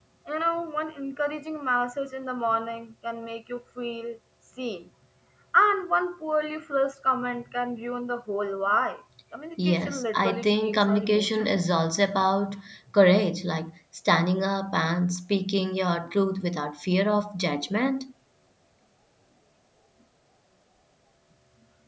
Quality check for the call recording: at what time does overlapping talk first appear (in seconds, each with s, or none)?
9.6 s